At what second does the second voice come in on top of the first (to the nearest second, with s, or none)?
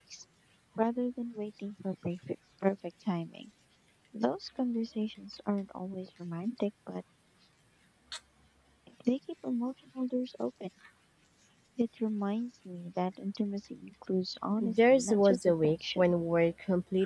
15 s